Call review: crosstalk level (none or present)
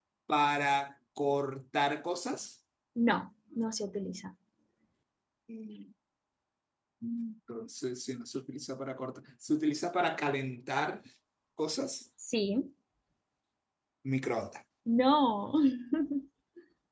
none